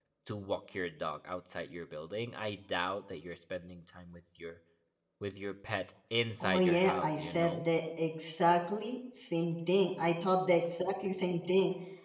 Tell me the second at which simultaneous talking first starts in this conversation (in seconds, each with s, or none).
6.4 s